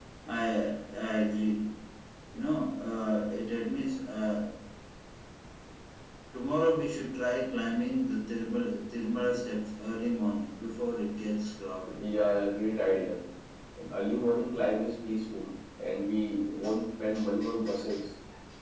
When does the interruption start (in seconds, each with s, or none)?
none